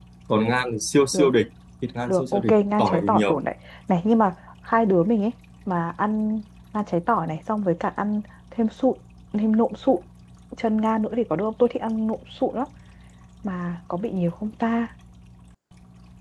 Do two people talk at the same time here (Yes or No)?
Yes